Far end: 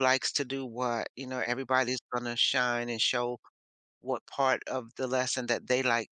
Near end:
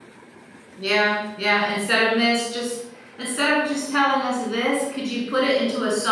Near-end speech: present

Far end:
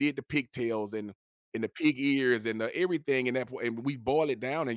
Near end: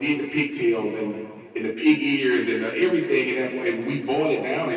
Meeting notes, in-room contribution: none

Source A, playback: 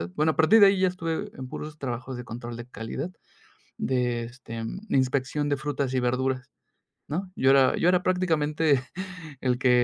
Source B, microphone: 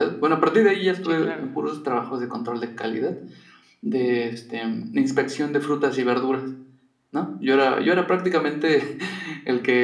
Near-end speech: present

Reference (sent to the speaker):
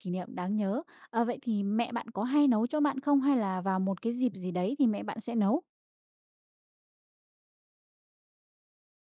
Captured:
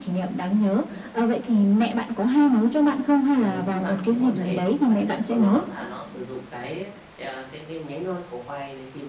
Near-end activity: present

